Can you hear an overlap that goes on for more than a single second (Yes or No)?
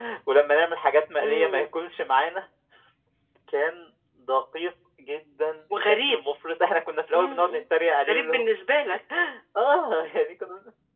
No